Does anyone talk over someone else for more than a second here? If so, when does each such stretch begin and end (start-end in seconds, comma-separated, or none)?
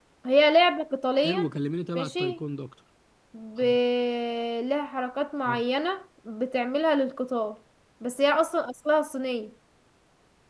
none